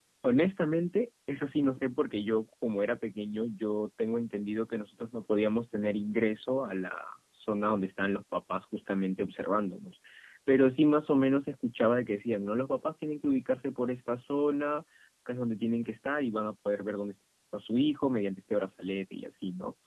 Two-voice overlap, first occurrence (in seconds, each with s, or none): none